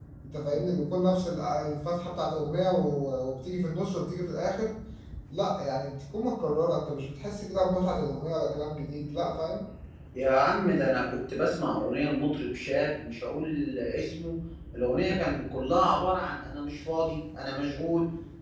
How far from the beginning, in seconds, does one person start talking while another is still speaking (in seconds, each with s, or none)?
none